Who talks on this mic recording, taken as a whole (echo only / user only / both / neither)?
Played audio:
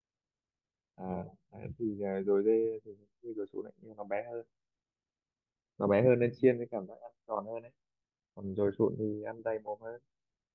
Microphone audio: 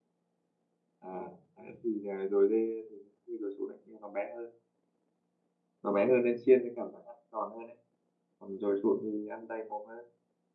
echo only